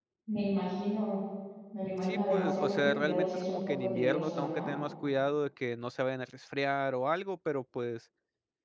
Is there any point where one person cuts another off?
Yes, from 2.0 s

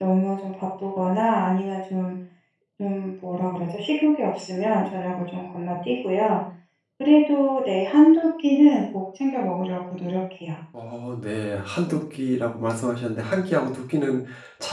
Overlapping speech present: No

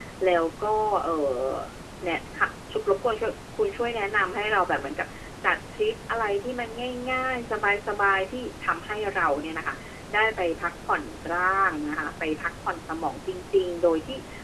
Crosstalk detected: No

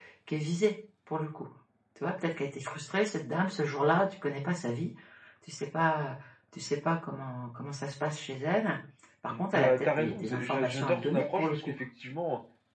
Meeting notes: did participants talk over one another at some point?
Yes, from 9.3 s

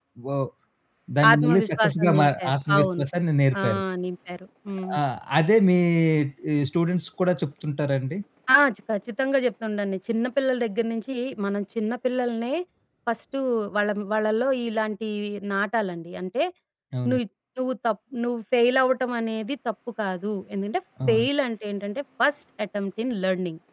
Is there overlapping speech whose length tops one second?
Yes, from 1.3 s

